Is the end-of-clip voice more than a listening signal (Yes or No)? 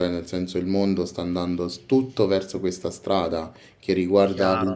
No